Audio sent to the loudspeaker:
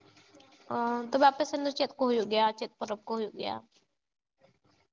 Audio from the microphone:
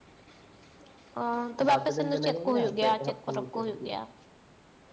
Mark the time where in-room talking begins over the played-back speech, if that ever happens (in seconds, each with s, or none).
1.7 s